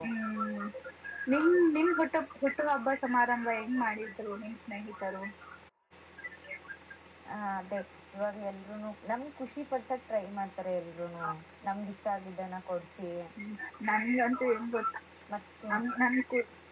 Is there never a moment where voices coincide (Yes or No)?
Yes